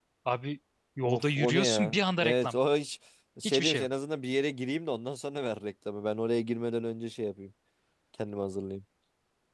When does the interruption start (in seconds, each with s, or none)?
1.0 s